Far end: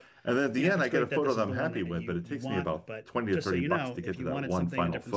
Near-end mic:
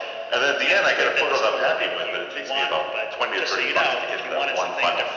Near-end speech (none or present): none